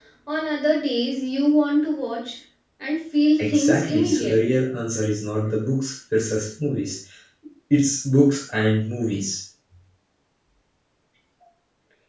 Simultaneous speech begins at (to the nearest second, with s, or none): 3 s